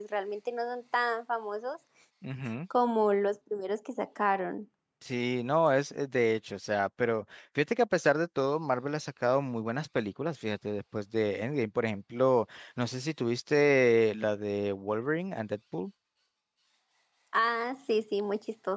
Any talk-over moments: No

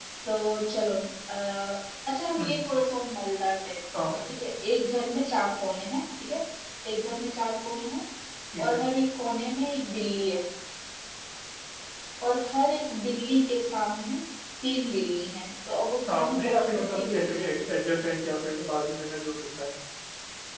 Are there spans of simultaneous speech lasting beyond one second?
Yes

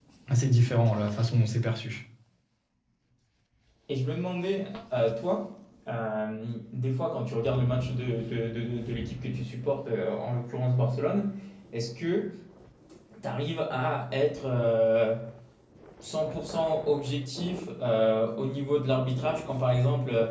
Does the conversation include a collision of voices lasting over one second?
No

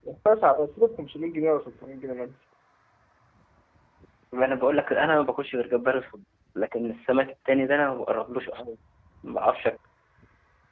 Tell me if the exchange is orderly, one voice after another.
Yes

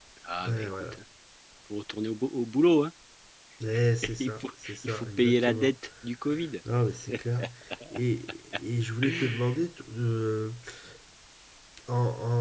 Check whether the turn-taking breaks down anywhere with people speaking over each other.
Yes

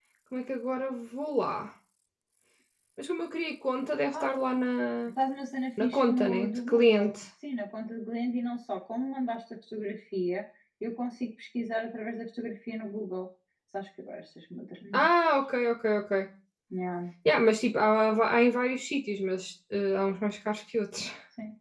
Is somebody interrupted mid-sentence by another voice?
Yes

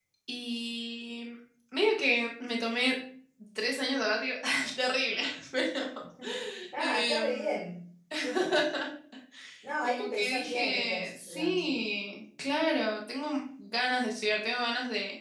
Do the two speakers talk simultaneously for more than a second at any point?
Yes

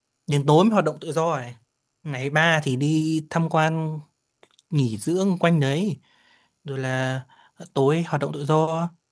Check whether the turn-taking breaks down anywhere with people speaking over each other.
No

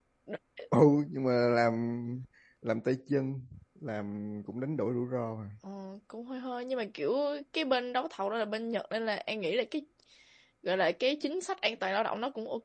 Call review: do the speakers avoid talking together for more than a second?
Yes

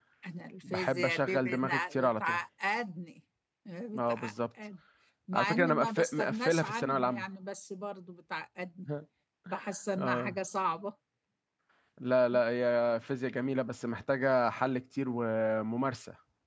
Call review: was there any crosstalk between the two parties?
Yes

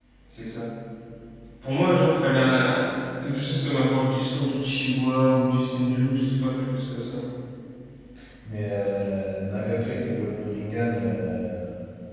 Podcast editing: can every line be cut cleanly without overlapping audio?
Yes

